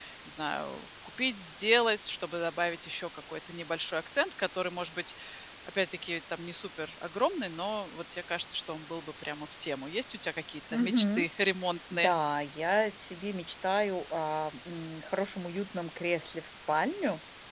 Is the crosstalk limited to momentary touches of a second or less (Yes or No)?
Yes